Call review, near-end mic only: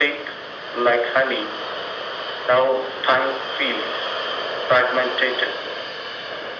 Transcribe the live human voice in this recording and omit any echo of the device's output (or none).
none